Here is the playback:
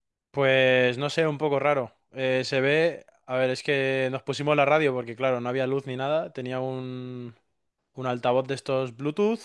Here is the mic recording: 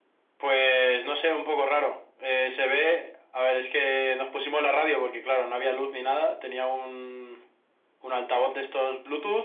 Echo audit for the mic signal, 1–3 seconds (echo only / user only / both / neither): echo only